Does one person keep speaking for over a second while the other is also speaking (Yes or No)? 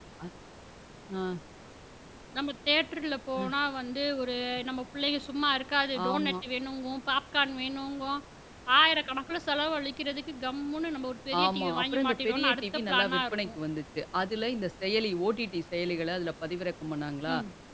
Yes